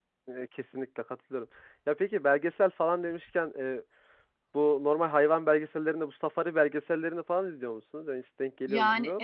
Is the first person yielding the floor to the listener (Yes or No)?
Yes